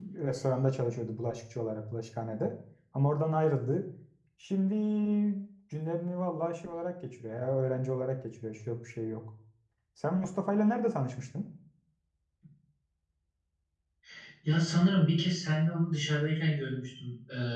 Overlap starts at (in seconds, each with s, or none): none